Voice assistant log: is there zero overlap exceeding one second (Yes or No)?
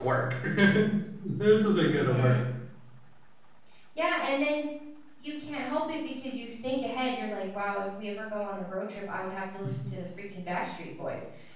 Yes